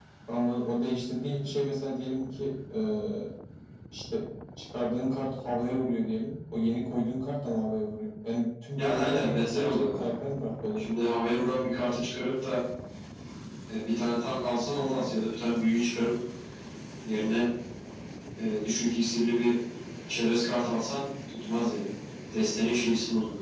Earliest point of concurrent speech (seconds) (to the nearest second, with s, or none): 9 s